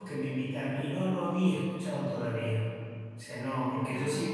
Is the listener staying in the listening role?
Yes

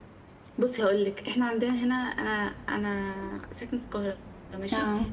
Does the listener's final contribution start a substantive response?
No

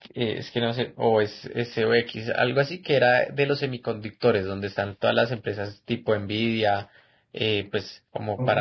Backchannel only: Yes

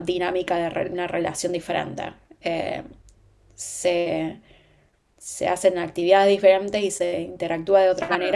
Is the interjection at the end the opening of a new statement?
Yes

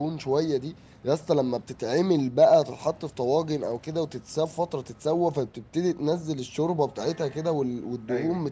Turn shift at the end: No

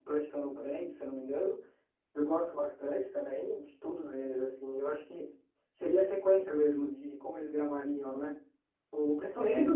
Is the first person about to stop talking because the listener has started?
No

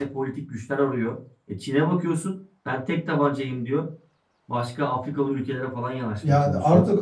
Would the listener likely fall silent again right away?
No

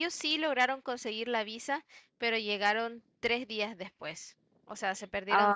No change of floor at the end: No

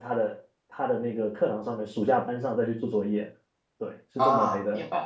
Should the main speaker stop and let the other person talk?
Yes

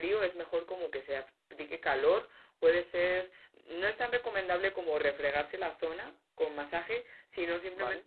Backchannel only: Yes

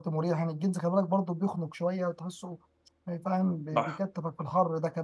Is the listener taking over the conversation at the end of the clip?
No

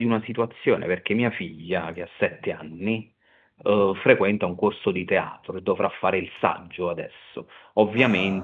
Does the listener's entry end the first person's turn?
No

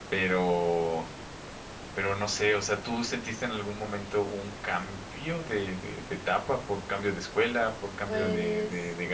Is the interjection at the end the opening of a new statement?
No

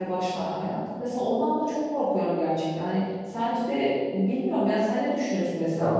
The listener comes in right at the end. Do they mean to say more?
Yes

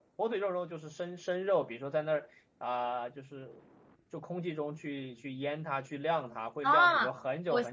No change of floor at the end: No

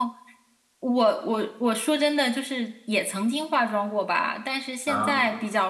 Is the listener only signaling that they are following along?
Yes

